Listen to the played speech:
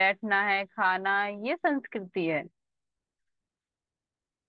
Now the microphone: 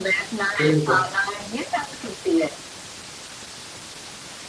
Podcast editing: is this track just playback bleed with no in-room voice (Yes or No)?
No